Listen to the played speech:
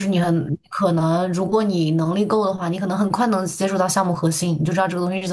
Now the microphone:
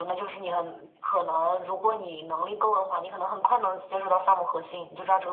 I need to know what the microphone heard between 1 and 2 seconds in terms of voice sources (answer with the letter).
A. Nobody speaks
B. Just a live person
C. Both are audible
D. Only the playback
D